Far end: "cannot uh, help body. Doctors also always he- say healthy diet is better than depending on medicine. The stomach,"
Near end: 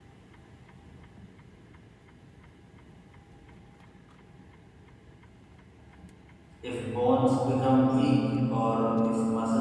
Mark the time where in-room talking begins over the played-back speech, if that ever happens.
6.6 s

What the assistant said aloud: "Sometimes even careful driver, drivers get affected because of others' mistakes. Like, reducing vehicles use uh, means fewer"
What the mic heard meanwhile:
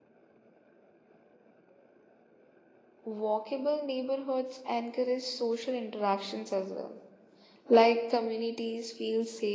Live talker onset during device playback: 3.0 s

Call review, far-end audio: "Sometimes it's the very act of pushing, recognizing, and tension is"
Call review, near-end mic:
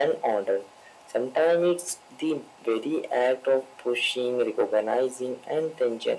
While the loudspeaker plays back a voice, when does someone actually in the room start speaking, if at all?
none

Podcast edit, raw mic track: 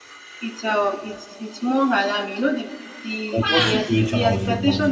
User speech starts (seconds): 3.3 s

